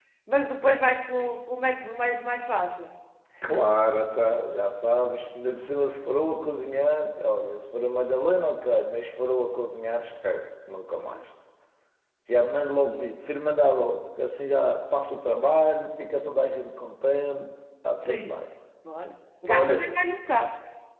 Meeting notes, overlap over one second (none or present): none